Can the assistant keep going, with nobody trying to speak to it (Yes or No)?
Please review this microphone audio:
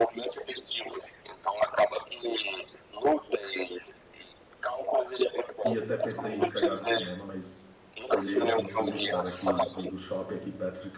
No